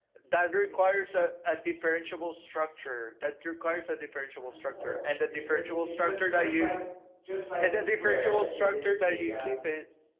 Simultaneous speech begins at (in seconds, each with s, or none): 4.4 s